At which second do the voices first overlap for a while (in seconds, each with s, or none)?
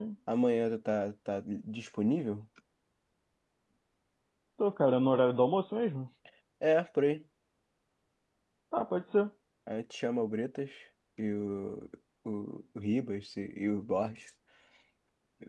none